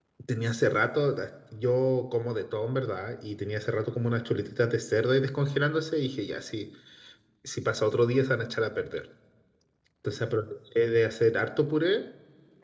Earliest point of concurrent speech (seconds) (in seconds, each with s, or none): none